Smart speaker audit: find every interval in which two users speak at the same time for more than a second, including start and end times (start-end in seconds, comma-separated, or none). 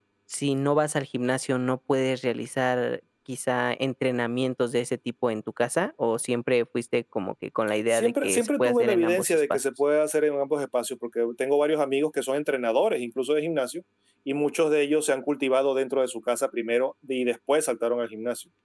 7.9-9.7